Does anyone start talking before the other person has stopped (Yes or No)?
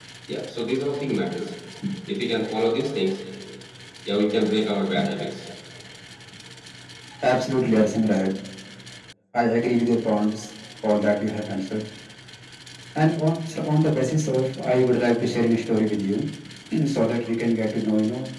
No